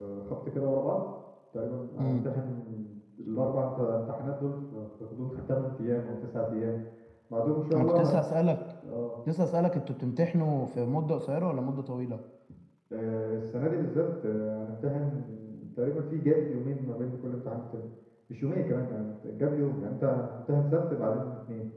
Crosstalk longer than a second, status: none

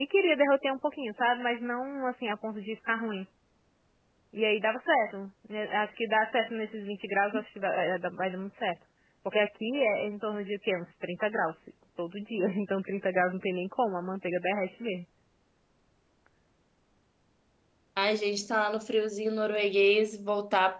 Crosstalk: none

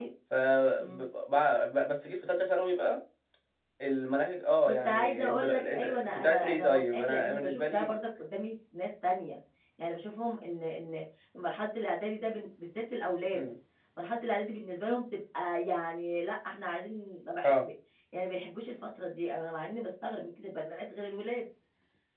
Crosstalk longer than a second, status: present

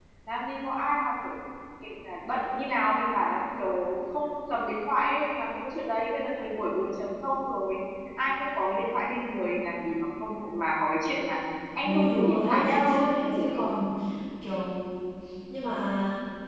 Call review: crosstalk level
present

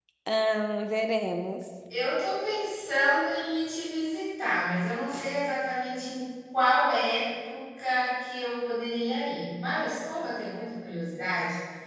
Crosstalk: none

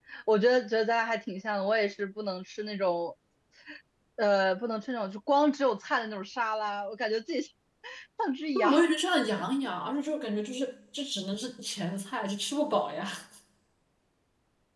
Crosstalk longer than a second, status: none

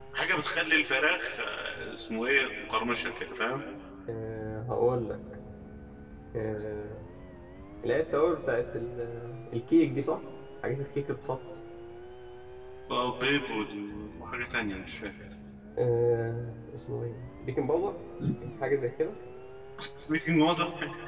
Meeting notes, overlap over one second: none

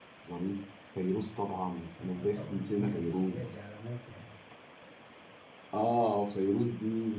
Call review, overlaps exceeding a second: present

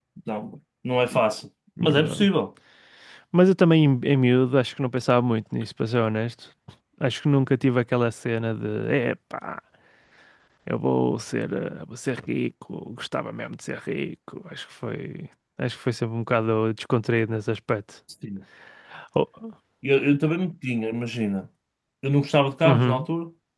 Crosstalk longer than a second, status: none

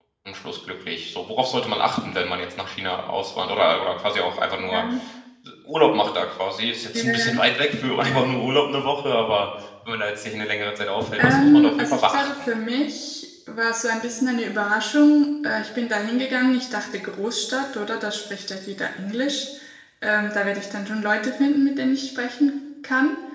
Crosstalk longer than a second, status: present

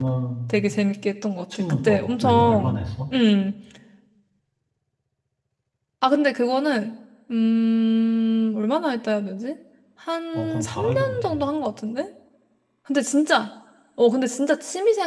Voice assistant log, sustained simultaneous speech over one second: present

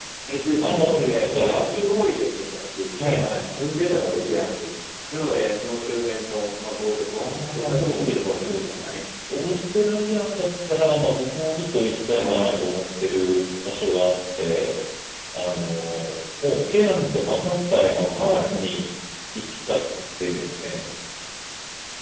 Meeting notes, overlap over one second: present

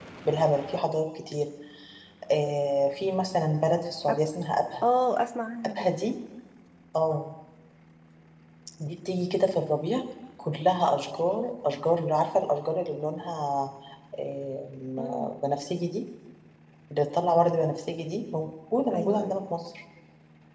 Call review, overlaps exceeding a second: none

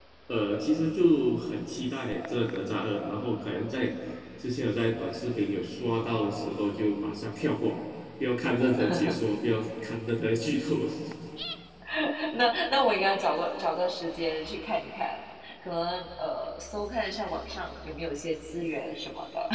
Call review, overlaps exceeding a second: none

